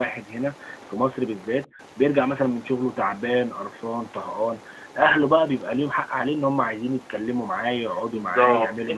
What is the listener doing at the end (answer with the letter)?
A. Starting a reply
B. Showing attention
A